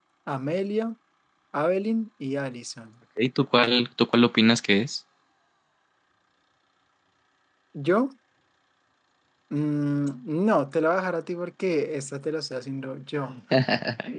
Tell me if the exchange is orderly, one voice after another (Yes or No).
Yes